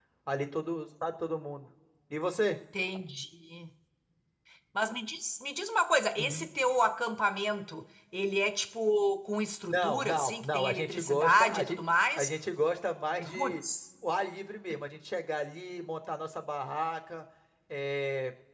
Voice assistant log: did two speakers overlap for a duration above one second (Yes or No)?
Yes